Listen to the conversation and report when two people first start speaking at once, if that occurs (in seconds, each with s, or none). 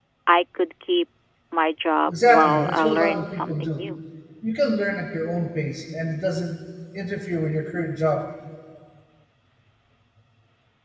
2.1 s